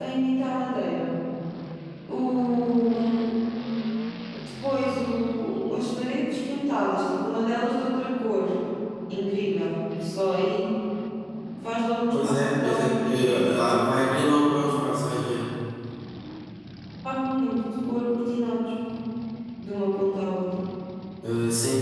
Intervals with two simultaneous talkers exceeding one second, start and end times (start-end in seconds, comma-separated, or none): 12.1-13.6